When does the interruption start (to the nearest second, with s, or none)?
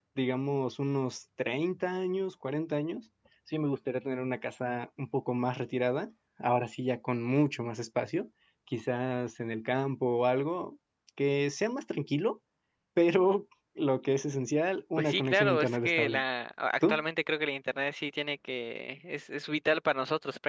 15 s